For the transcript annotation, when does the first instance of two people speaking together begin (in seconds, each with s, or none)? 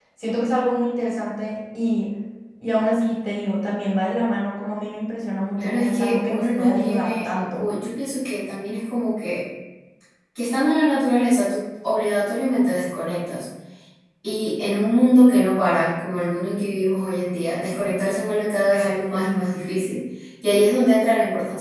5.6 s